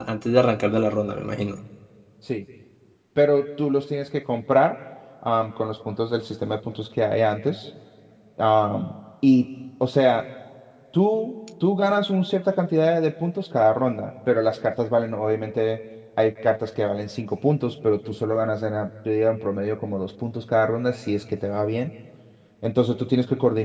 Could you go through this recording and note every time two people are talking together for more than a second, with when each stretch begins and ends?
none

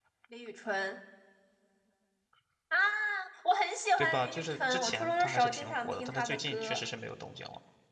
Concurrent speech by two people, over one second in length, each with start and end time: 4.0-6.8

